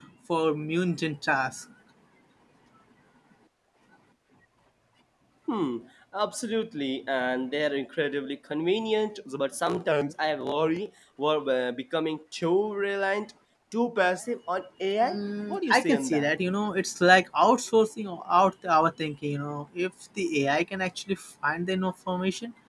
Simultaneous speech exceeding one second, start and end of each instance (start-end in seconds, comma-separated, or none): 15.0-16.3